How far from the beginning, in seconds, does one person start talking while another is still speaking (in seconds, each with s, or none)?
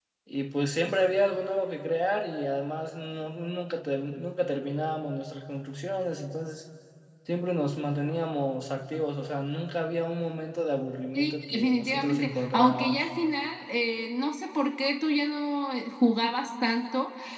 11.2 s